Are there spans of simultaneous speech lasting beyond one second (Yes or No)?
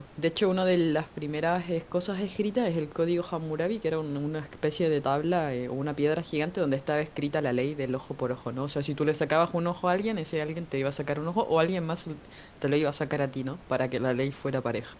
No